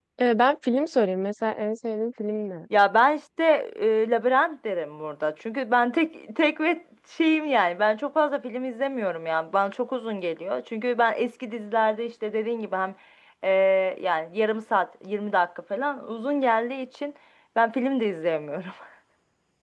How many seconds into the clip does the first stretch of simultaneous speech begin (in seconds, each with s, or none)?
none